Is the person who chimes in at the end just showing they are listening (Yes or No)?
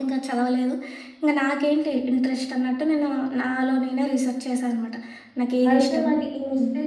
No